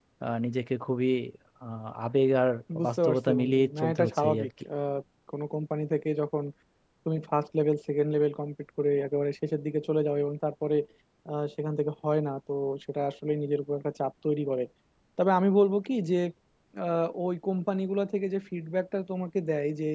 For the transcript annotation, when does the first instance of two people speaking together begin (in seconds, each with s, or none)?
2.9 s